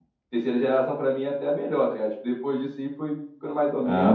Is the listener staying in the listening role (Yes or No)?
No